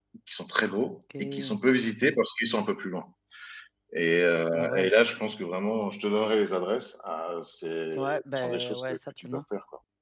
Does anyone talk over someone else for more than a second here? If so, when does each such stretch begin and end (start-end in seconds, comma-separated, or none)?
7.9-9.4